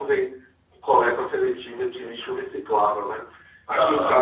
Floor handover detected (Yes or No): No